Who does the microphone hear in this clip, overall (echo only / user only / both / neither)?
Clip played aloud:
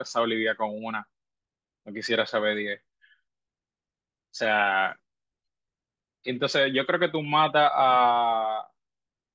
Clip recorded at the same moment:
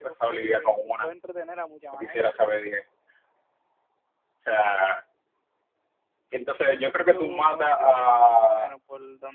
both